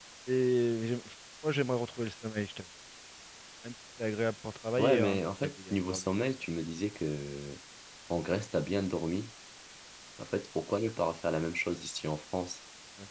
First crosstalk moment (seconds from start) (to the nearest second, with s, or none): 5 s